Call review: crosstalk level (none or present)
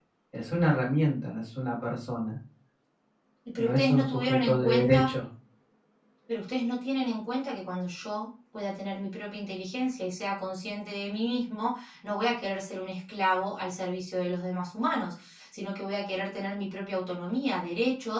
present